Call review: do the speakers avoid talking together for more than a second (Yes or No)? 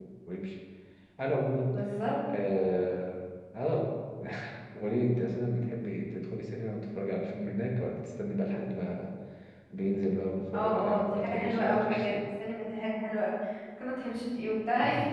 No